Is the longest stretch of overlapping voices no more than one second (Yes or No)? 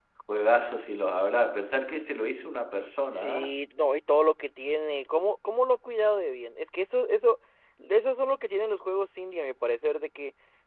Yes